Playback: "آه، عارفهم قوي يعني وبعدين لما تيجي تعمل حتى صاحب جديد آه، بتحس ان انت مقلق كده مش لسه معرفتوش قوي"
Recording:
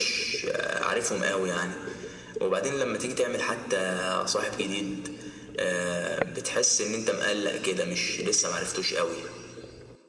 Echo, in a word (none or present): present